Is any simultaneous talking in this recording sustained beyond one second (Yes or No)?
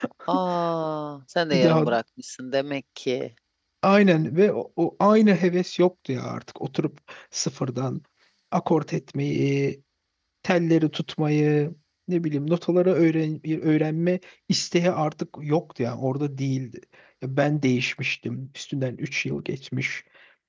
No